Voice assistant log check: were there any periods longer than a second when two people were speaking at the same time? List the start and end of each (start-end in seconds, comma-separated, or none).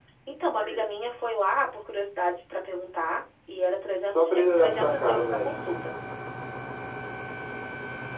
4.1-5.5